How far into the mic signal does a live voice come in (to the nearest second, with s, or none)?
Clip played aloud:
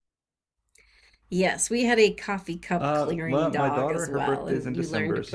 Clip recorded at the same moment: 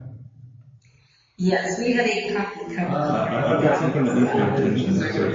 3 s